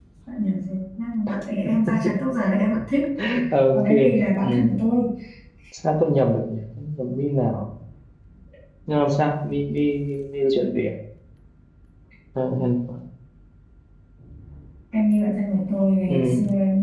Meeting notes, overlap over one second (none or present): none